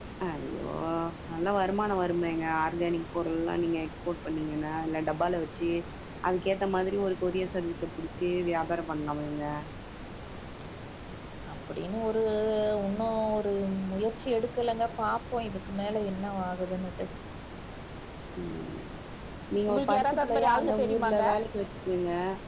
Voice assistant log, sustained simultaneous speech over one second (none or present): present